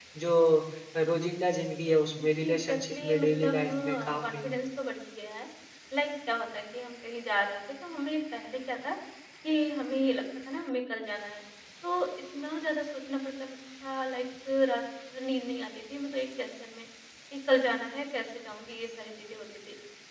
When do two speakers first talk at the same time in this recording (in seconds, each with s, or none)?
2.4 s